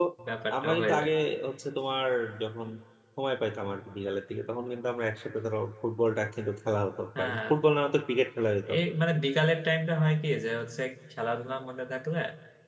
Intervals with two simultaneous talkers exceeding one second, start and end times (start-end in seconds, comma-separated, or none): none